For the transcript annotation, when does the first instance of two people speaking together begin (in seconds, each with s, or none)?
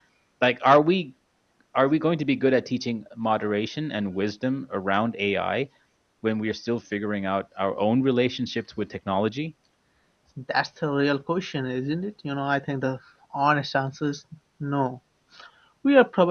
none